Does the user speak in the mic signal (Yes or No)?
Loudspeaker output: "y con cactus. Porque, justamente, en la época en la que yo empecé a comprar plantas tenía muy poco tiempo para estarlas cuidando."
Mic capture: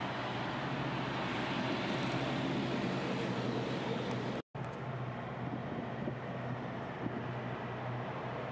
No